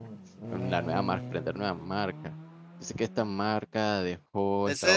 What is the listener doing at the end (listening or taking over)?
taking over